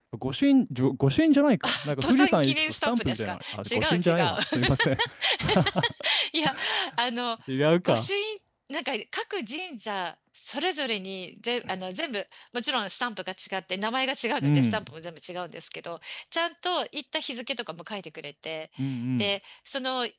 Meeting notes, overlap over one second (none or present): present